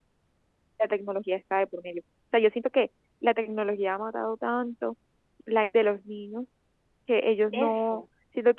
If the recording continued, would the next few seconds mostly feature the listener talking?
No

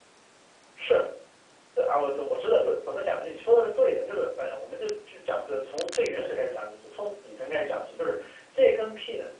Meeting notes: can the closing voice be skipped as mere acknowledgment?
Yes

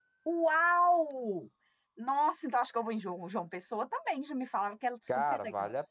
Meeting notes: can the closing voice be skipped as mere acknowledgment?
No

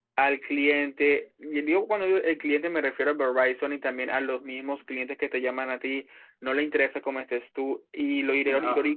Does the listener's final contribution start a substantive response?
No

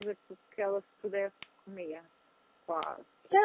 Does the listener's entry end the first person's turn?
Yes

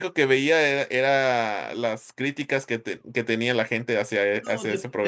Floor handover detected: Yes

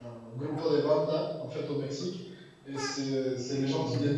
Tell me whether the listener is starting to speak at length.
No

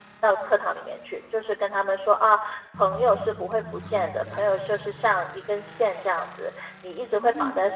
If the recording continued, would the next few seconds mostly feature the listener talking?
No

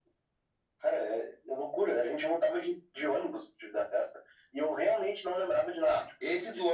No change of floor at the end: No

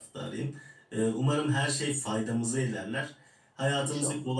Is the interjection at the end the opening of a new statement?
No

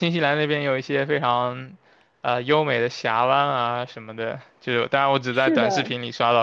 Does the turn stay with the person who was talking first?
Yes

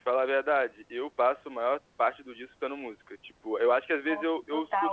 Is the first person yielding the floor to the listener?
No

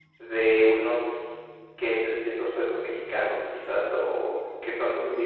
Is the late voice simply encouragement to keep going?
Yes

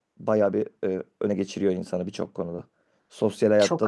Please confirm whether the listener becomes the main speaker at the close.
No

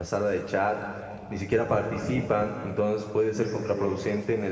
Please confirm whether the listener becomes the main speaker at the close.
No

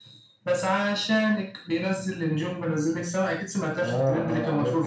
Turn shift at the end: Yes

